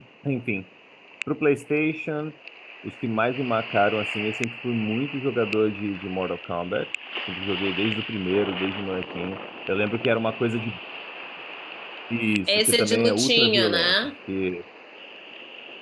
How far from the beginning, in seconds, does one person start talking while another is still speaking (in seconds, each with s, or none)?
12.5 s